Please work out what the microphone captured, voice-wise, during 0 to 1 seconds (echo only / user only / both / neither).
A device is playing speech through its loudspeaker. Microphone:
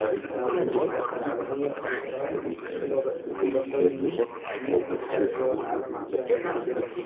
both